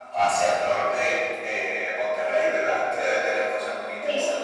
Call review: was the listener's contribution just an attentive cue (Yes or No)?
No